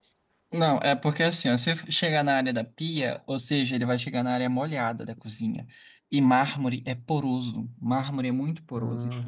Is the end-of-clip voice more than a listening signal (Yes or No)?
No